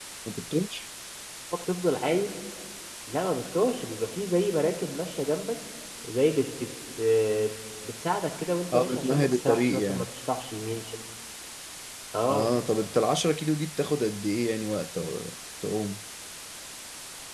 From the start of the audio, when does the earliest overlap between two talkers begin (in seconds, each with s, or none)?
8.7 s